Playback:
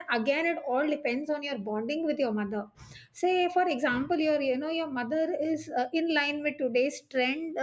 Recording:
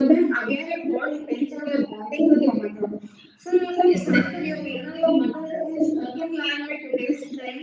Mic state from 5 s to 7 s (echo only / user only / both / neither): echo only